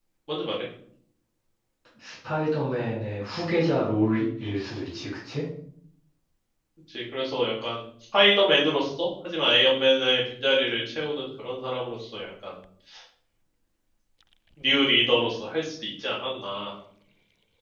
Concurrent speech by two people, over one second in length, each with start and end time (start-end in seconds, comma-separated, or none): none